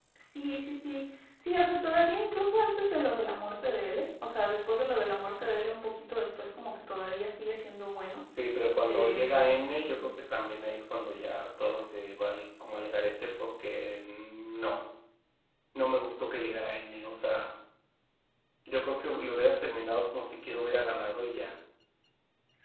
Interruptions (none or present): present